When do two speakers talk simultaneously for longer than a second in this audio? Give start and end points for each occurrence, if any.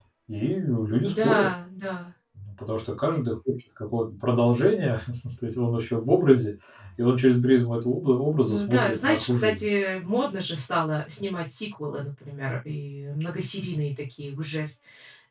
8.4-9.7

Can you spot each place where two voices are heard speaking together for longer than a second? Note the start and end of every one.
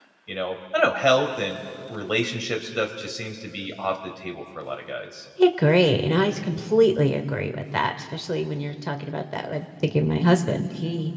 none

